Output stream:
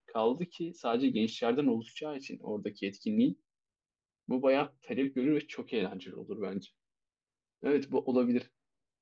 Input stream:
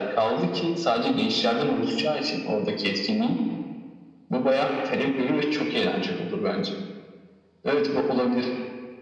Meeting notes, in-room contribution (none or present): none